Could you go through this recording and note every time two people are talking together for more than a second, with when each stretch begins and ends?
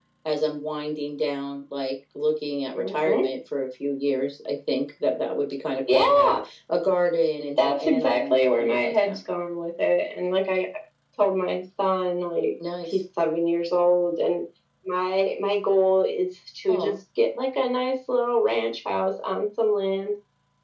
7.6-9.2

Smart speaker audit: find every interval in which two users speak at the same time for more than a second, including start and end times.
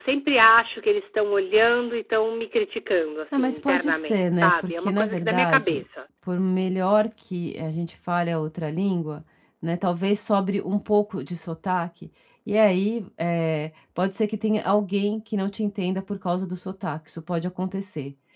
3.3-5.8

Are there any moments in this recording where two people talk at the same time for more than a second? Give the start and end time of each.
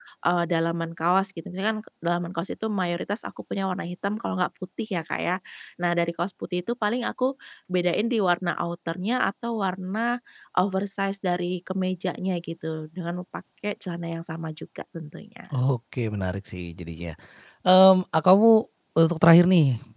none

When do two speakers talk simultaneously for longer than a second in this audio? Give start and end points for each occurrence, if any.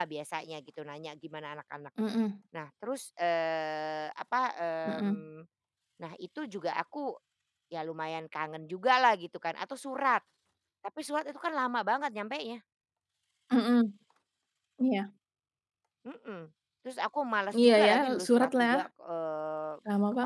17.6-18.9

